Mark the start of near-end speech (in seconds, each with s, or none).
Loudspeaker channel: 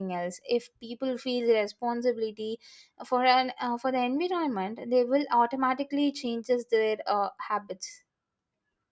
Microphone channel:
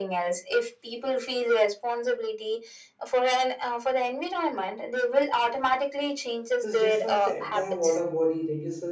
6.6 s